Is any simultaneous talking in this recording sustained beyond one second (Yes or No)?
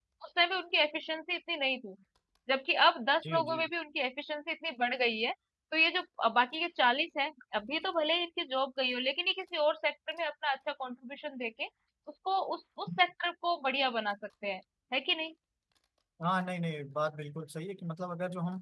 No